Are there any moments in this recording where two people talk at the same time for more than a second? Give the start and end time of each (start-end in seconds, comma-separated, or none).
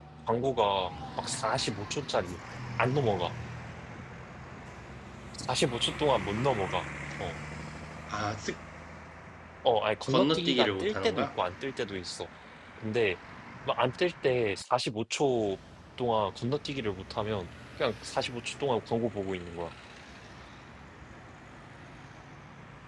10.1-11.3